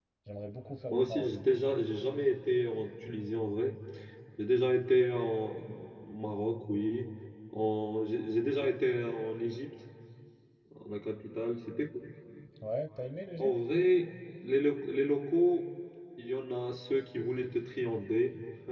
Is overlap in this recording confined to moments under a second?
Yes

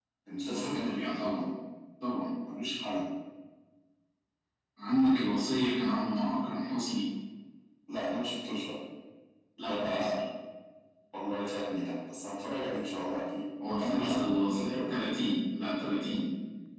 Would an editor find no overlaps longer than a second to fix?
No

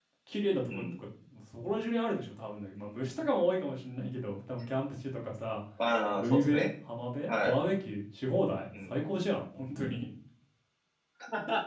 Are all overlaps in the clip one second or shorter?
Yes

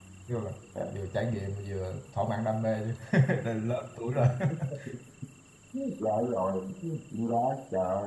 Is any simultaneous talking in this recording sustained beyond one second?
No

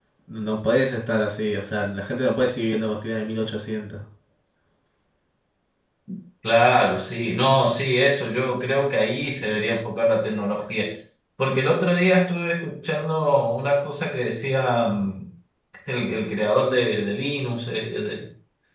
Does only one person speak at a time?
Yes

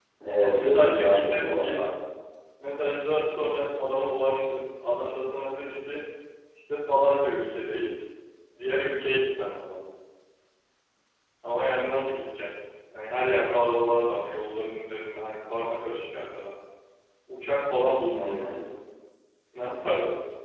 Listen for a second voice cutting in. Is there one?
Yes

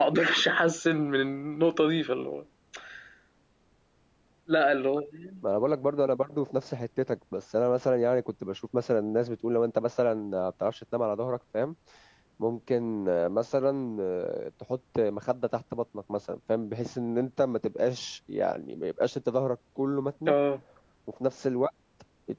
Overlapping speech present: No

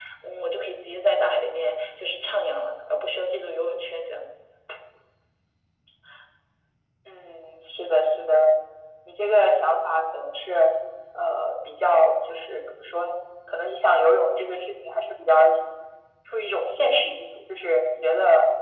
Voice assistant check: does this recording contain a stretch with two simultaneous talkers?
No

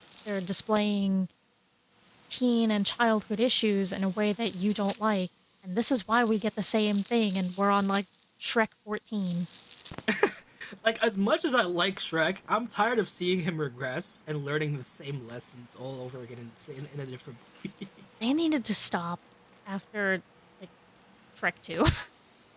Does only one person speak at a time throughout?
Yes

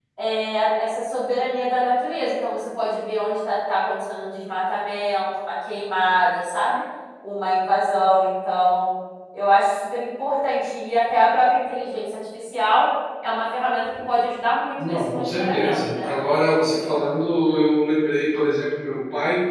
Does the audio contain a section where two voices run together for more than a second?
Yes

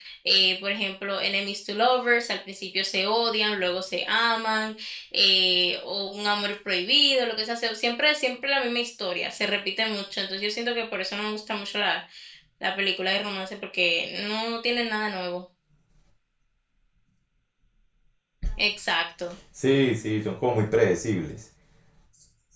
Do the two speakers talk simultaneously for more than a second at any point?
No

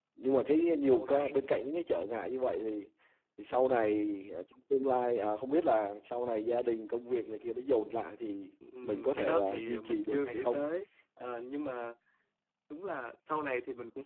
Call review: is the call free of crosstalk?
No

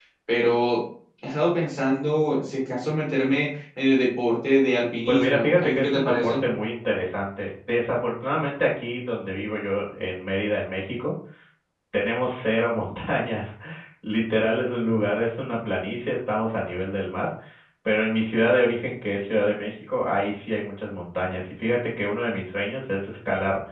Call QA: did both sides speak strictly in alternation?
No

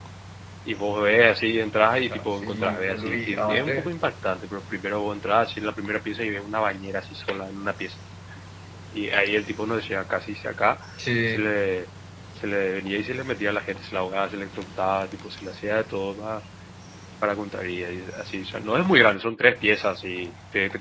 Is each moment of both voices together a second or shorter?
No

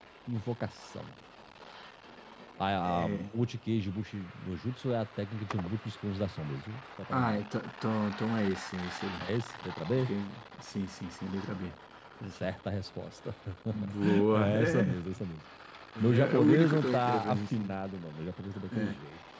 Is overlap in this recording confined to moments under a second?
No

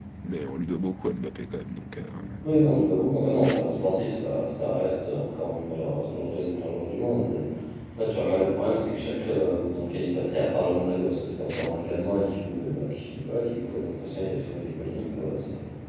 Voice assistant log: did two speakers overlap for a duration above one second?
No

